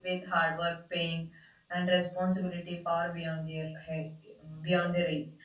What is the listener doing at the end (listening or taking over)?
listening